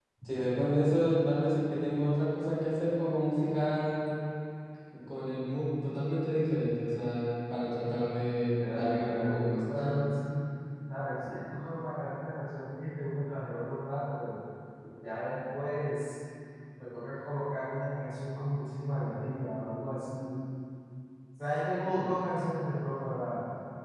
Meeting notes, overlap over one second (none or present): present